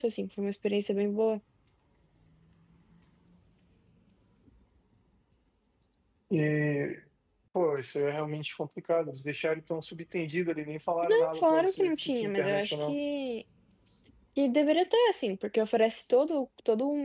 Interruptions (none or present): present